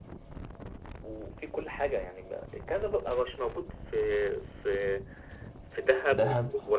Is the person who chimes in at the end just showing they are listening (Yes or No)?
Yes